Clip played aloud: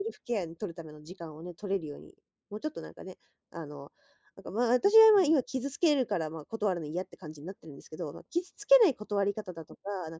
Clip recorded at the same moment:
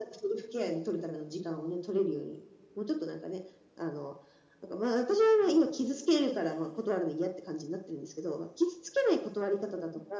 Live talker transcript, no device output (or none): none